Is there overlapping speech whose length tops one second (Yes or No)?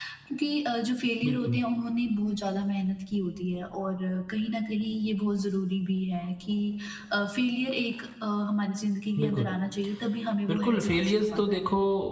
Yes